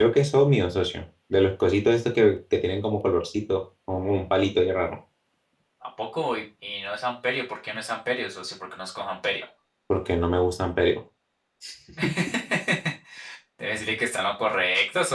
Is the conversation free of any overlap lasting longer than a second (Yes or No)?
Yes